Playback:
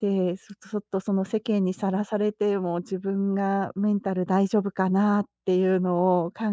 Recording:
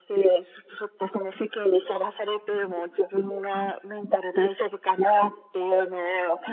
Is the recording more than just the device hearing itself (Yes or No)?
No